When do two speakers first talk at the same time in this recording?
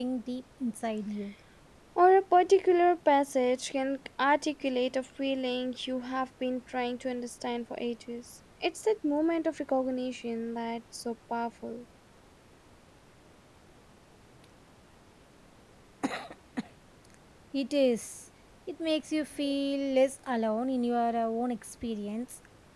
none

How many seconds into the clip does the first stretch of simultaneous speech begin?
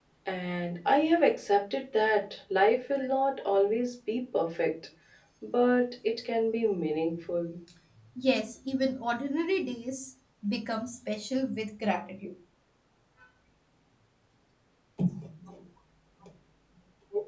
none

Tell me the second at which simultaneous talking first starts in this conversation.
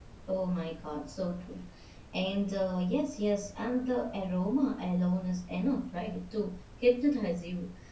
none

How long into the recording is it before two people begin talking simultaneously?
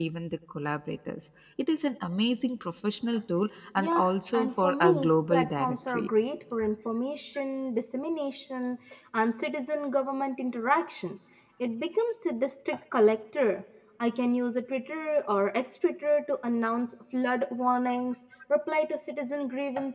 3.8 s

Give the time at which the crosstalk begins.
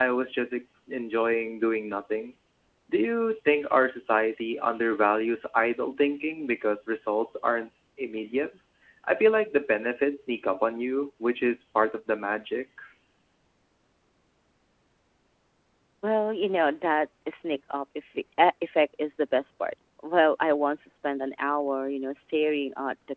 none

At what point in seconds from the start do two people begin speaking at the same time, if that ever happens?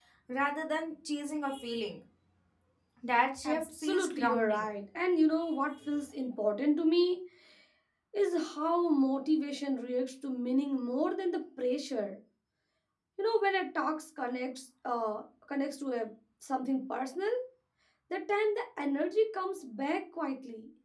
3.4 s

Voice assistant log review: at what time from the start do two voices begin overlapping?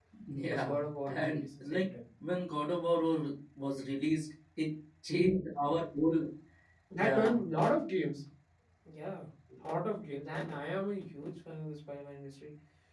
0.5 s

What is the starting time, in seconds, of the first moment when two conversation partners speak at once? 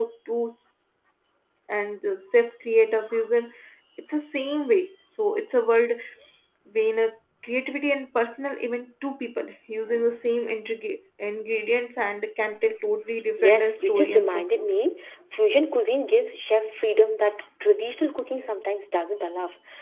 13.4 s

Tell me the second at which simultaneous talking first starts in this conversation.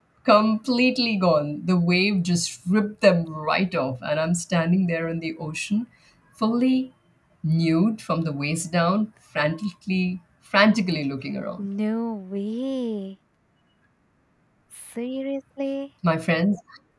none

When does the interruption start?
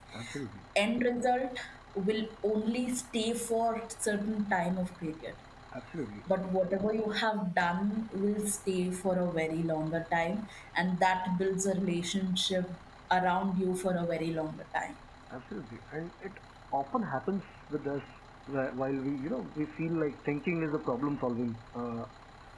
none

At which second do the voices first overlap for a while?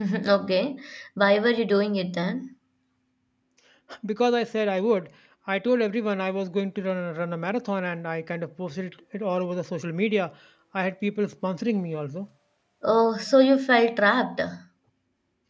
none

